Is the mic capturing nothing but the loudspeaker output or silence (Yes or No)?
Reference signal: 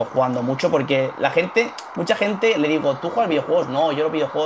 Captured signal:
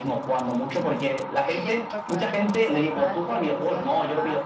No